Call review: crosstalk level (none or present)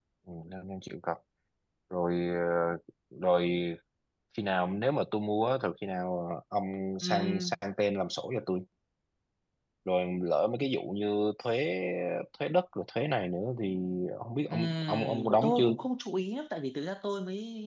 present